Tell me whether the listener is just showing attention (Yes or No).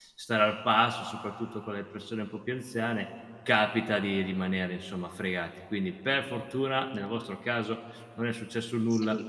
No